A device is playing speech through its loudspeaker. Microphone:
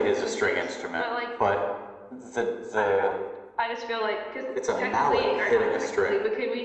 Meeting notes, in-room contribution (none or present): none